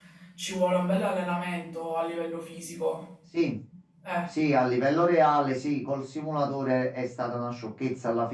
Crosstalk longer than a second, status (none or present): none